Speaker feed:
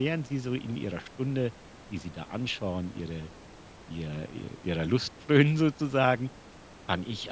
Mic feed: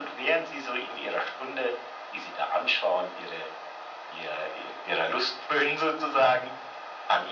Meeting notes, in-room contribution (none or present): none